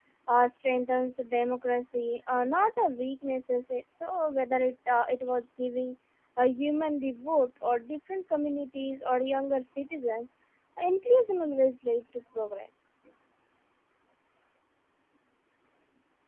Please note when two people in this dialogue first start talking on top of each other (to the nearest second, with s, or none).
none